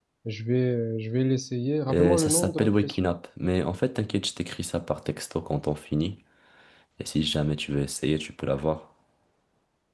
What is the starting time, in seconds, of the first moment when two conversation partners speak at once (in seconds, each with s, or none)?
1.9 s